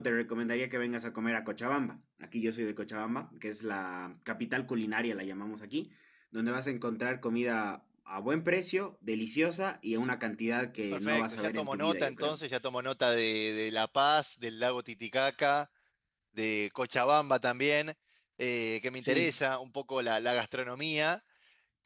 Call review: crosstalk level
present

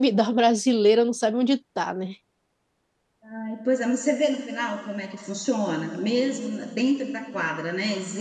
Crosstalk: none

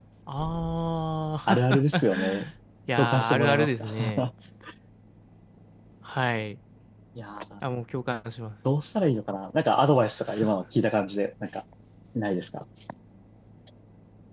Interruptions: present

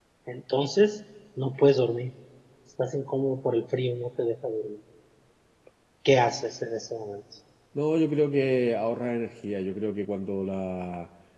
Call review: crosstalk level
none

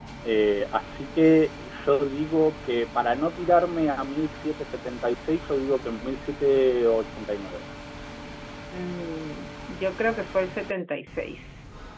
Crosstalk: none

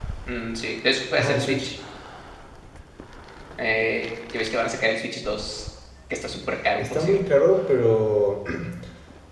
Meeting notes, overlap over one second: none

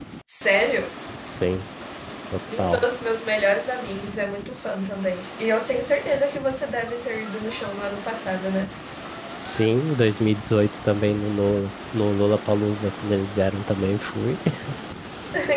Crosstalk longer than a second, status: none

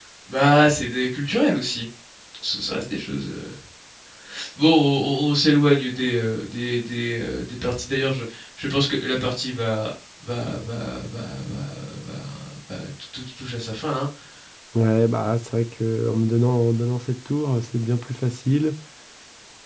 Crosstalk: none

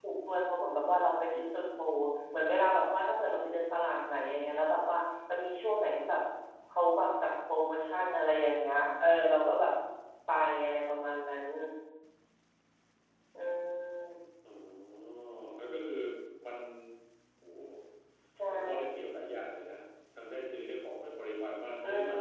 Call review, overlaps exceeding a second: none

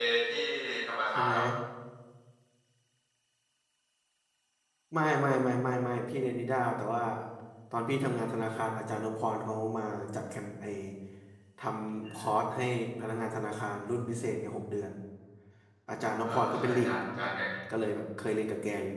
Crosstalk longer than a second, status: present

